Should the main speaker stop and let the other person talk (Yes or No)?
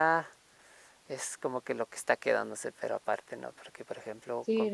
Yes